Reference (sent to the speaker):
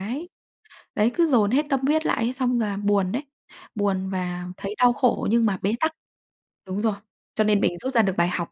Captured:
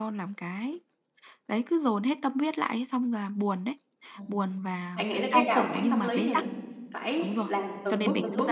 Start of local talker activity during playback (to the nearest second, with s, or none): 4 s